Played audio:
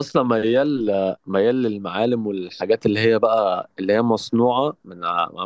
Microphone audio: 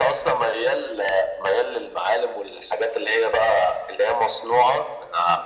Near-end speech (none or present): none